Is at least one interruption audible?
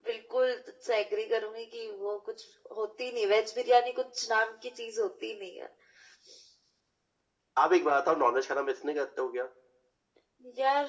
No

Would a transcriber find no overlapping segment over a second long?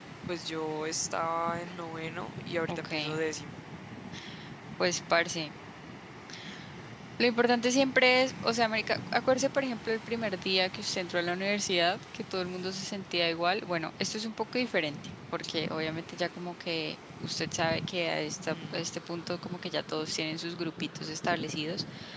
Yes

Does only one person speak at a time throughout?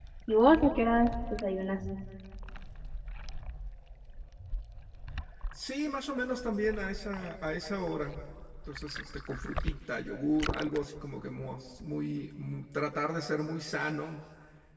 Yes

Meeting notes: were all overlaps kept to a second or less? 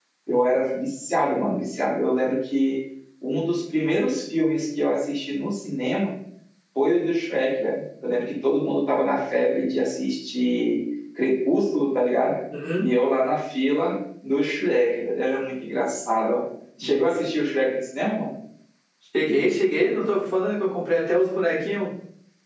Yes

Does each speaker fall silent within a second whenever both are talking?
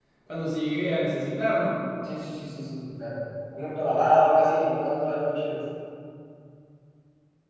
Yes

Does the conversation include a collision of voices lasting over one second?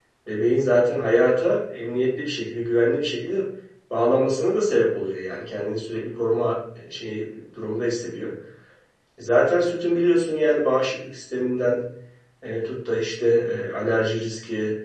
No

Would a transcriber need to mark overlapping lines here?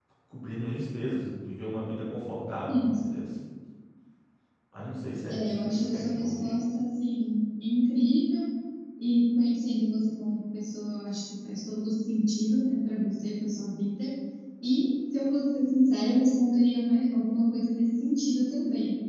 Yes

